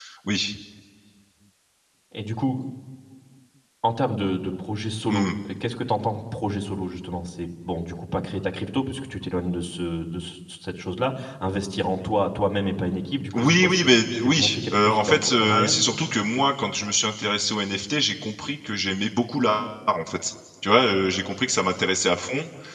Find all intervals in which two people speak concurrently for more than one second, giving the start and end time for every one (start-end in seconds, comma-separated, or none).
13.3-15.7